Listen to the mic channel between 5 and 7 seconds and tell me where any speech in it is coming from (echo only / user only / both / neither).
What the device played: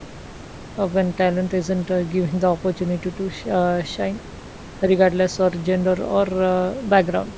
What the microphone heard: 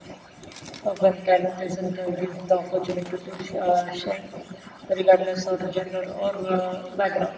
echo only